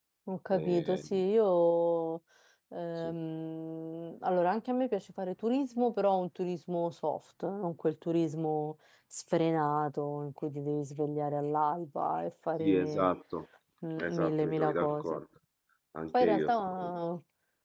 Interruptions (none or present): present